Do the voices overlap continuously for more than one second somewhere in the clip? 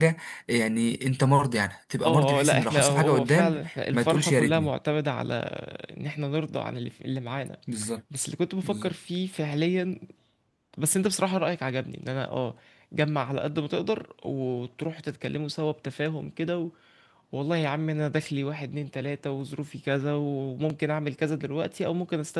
Yes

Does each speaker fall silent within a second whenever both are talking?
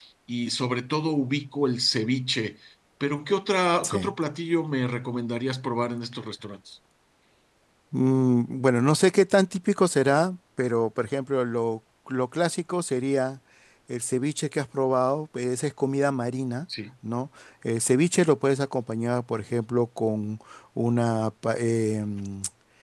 Yes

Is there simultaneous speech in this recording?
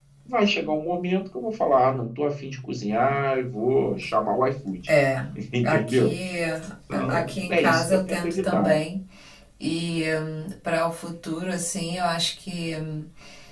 Yes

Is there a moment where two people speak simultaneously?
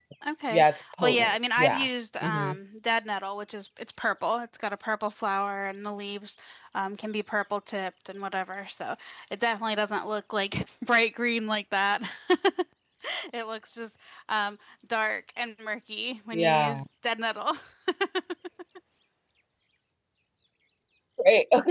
Yes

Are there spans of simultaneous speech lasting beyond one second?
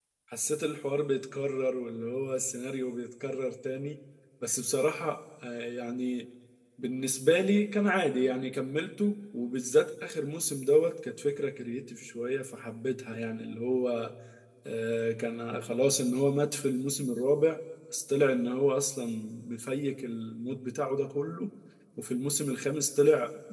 No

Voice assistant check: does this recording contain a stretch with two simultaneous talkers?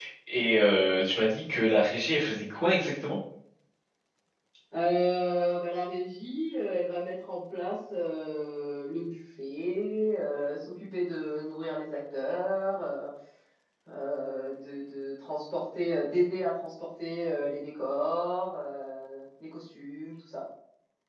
No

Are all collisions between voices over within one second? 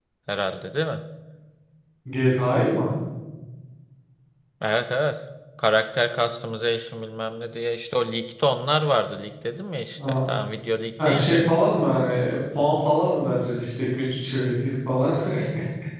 Yes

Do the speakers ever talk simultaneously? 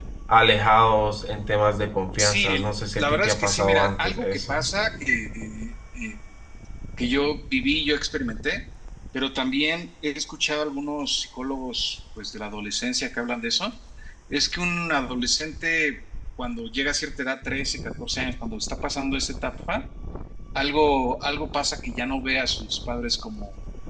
Yes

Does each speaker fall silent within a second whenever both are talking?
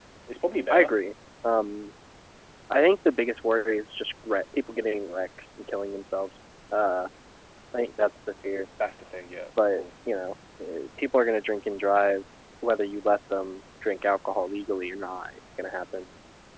Yes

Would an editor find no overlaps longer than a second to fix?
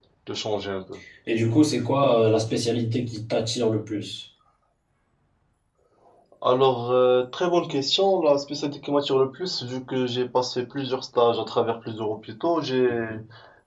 Yes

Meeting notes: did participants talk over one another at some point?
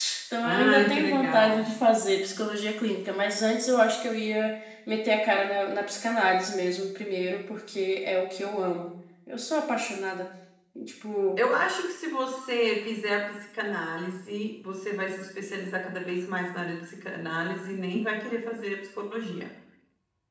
Yes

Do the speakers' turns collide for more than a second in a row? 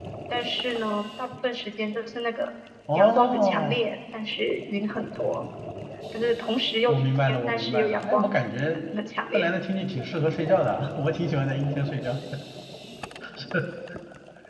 Yes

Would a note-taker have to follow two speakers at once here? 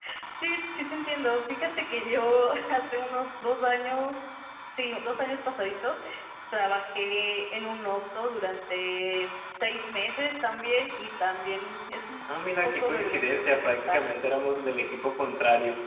Yes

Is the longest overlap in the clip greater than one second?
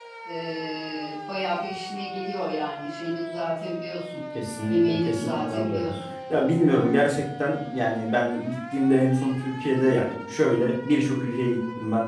Yes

